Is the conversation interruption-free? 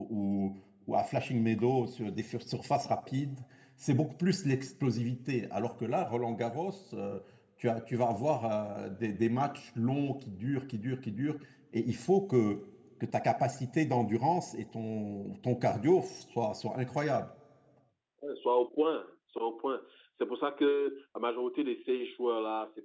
Yes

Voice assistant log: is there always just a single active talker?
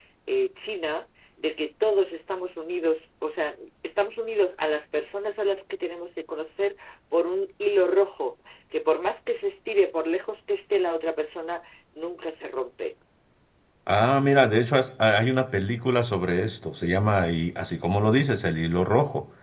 Yes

